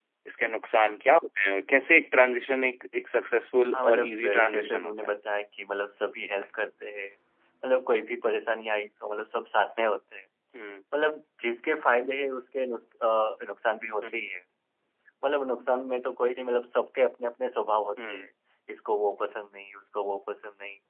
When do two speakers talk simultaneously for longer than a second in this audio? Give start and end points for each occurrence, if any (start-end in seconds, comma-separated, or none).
3.7-5.2